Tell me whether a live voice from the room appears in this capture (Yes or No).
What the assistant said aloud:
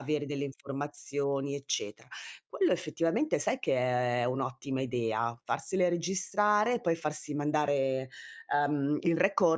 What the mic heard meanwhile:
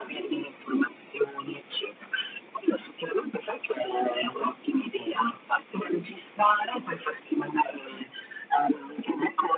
No